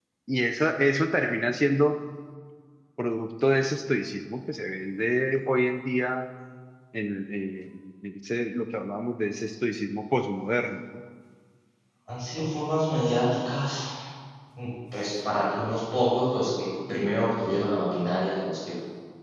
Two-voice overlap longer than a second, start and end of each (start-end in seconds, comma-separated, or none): none